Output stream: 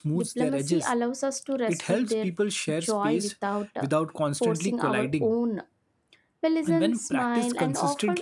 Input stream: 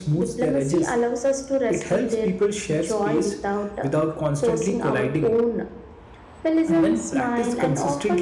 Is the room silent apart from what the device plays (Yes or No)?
Yes